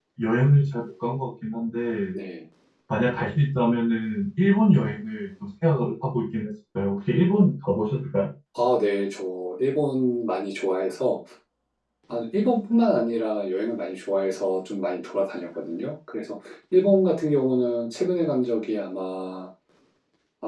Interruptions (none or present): none